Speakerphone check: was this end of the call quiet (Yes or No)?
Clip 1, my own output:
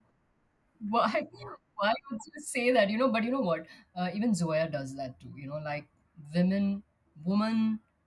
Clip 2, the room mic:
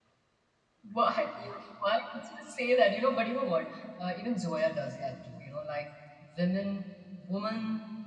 Yes